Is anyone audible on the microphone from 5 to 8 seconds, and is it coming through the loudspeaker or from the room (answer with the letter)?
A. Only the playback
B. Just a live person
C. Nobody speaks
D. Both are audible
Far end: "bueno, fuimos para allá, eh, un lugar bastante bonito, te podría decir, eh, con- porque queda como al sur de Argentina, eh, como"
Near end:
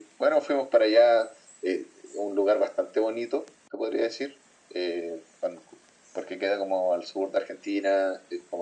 A